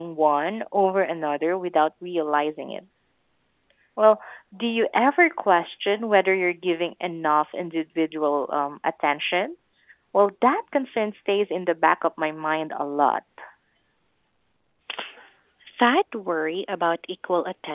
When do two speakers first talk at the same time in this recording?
none

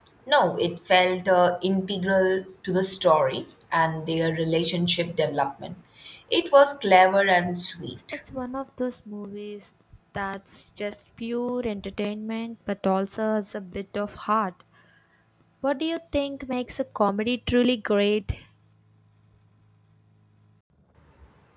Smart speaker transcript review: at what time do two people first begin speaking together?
none

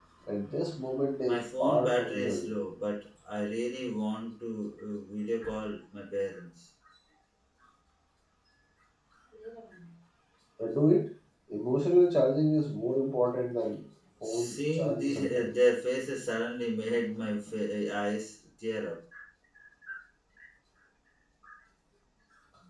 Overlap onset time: 1 s

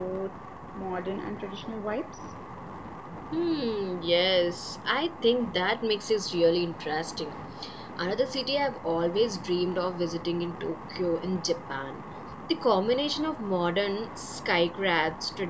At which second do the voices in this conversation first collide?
none

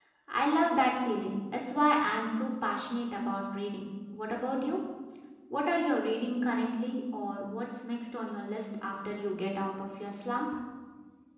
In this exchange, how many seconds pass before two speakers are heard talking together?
none

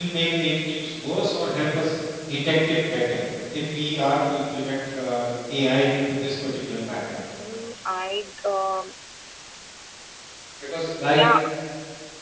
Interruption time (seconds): none

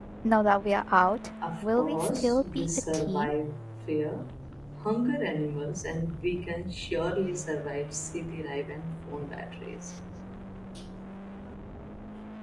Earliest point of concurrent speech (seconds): 1 s

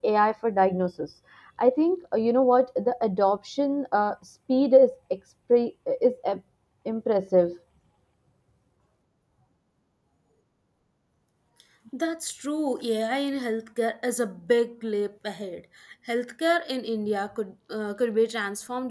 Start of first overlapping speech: none

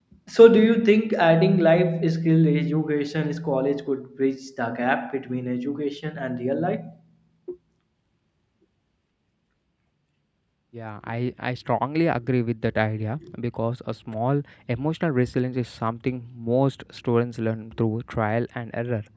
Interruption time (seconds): none

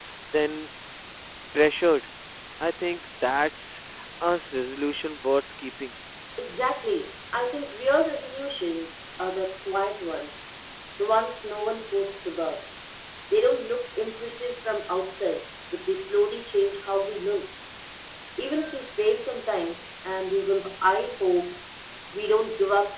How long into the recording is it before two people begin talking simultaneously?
none

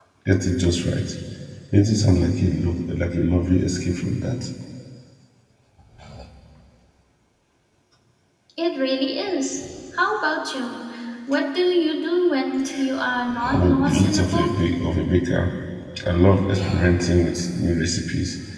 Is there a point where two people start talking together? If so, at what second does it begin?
13 s

